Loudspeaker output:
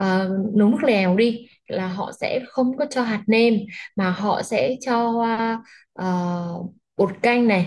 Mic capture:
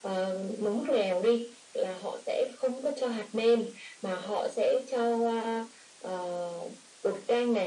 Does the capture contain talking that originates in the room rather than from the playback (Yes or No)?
No